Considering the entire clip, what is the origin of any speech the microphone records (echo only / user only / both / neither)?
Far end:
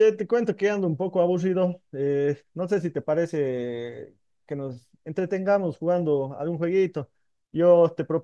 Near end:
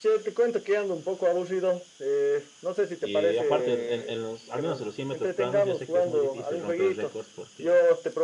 both